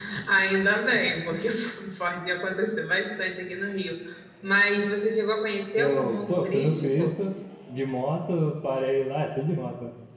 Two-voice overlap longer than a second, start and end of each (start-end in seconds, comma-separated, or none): 5.8-7.2